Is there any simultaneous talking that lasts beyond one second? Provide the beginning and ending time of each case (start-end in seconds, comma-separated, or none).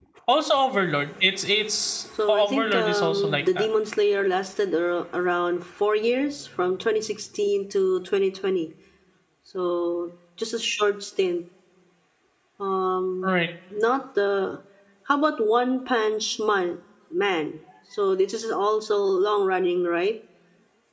2.3-3.7